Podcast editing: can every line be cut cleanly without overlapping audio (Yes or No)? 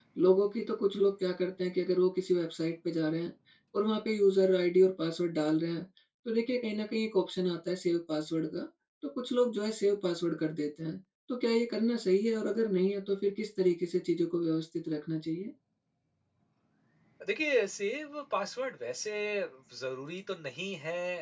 Yes